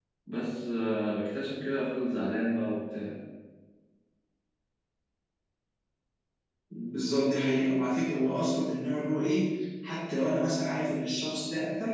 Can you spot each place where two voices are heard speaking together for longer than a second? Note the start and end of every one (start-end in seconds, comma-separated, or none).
none